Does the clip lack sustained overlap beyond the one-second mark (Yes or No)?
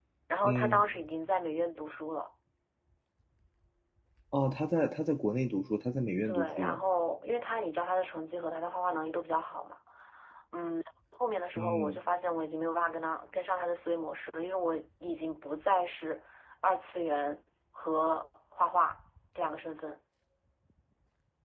Yes